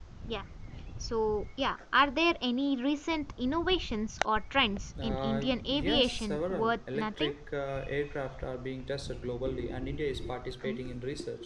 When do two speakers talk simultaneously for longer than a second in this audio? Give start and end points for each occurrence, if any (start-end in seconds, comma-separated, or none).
5.0-7.3